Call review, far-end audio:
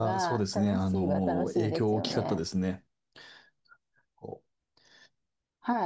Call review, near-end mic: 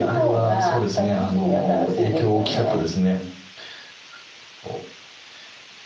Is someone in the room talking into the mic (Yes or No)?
No